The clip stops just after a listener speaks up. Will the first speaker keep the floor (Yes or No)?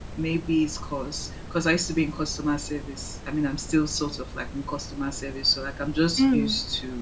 Yes